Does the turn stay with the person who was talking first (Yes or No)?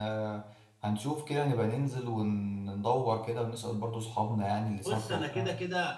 No